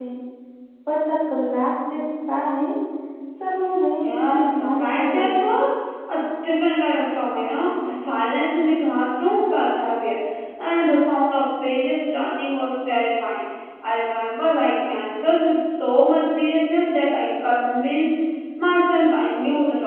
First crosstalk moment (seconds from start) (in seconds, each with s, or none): 4.0 s